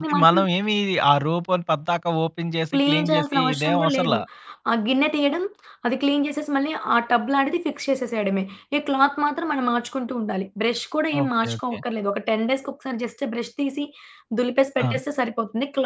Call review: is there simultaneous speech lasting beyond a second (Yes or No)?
Yes